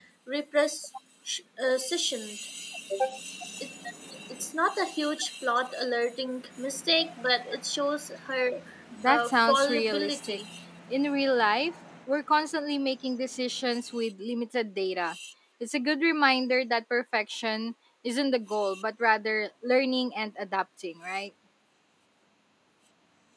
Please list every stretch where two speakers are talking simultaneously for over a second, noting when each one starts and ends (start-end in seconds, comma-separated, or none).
9.1-10.4